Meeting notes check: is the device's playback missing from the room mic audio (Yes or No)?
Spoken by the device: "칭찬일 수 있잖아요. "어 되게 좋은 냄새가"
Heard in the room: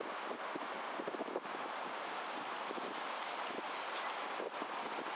Yes